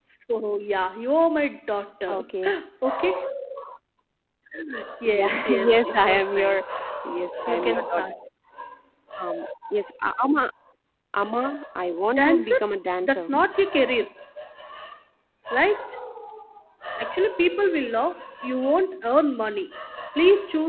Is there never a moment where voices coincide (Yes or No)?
No